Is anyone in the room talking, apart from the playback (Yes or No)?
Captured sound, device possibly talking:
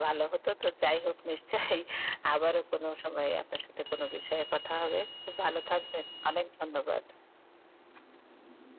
No